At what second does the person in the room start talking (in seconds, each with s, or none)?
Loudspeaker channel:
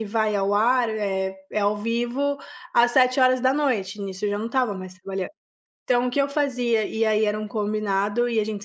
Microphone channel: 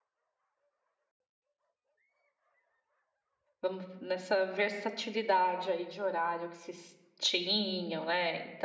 3.6 s